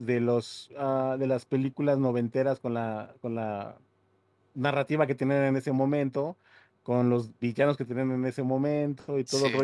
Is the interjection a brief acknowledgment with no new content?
Yes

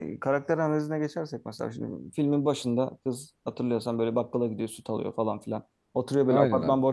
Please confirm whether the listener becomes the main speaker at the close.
No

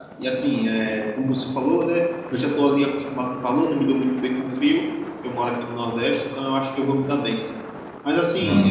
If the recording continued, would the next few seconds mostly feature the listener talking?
No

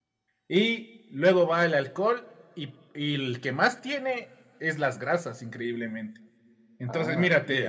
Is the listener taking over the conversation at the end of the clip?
No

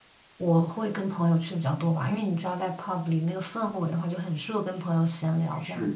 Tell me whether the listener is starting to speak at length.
Yes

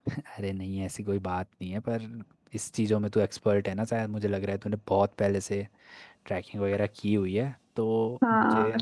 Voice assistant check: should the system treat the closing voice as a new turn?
Yes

